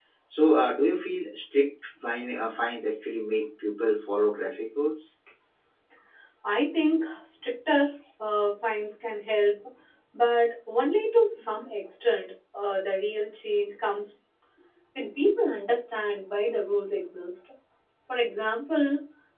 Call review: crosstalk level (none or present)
none